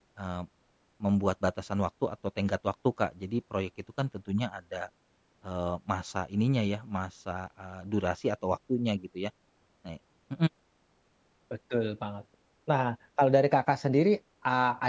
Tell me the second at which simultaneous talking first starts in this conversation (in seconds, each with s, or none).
none